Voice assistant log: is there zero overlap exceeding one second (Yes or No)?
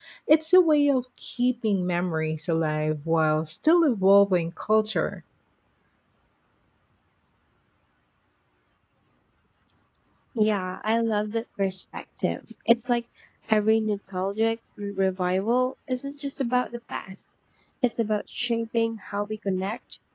Yes